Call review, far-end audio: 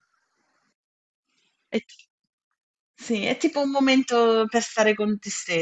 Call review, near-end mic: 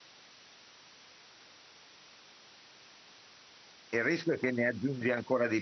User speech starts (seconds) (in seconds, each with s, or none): 3.9 s